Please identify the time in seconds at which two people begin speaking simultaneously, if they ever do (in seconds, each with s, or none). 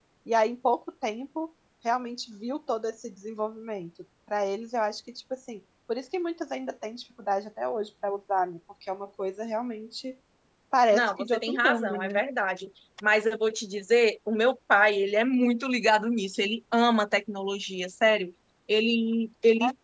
10.9 s